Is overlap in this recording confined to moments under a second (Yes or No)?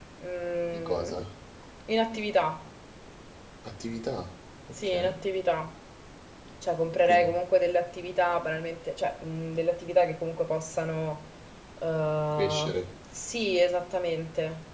Yes